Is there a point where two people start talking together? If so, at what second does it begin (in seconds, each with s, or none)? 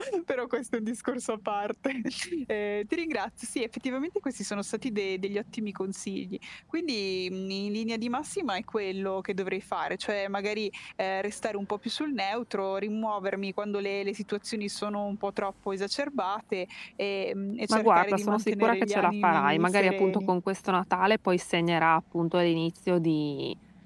17.7 s